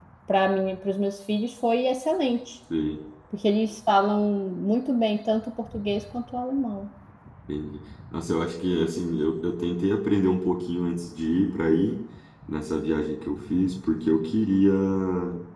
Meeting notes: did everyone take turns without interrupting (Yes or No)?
Yes